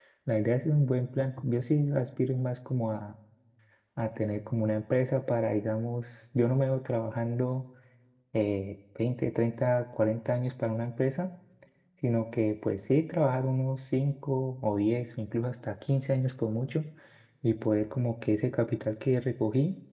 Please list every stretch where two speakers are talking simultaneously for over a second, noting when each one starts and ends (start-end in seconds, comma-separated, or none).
none